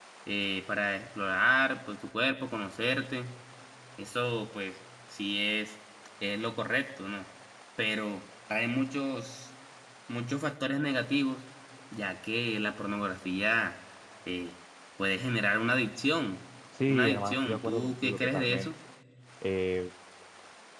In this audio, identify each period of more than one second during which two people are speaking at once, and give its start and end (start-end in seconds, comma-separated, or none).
16.9-18.7